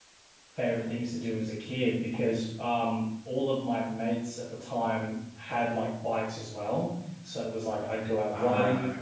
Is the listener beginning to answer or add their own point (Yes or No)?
No